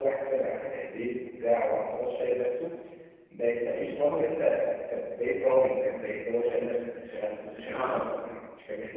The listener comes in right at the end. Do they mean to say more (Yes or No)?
No